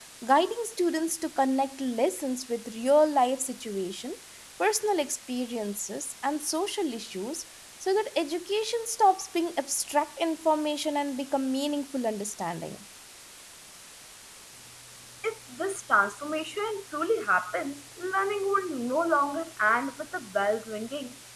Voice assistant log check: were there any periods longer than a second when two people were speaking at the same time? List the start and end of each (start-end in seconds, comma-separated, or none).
none